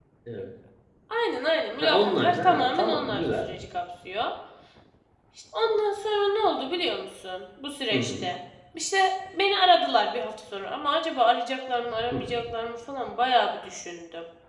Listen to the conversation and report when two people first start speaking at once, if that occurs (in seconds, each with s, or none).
1.8 s